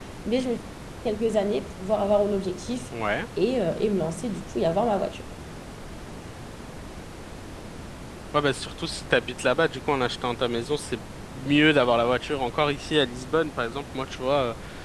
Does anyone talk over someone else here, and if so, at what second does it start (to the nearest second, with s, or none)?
none